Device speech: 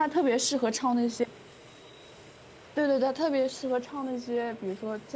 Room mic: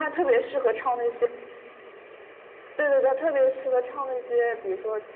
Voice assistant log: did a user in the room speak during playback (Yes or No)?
No